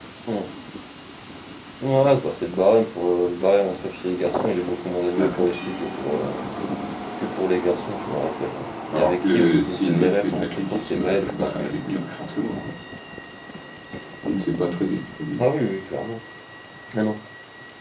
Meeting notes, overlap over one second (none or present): present